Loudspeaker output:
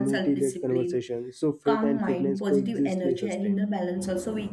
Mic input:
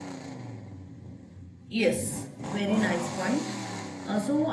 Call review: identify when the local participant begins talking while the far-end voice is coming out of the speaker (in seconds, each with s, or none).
1.7 s